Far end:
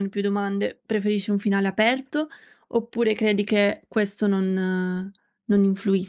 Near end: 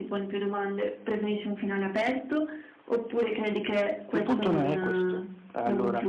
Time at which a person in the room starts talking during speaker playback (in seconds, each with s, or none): 4.1 s